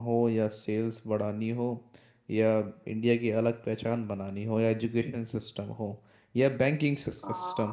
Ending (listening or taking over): listening